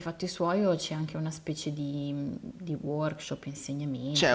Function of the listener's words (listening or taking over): taking over